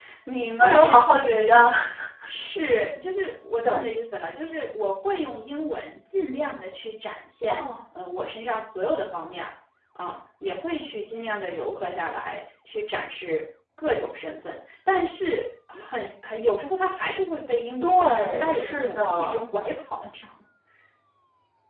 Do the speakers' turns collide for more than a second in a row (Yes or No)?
Yes